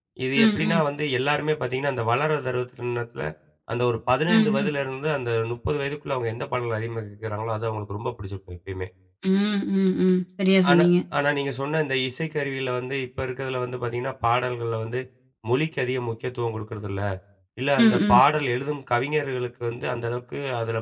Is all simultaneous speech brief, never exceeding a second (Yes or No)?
Yes